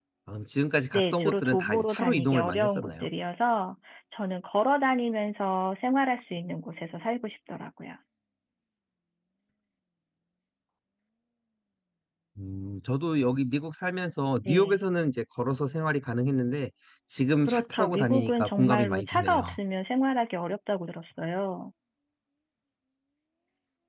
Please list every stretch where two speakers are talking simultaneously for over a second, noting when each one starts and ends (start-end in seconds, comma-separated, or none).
0.9-3.1, 17.5-19.4